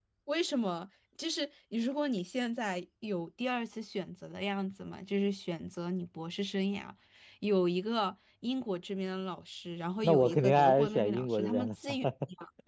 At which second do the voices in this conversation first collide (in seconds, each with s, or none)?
10.0 s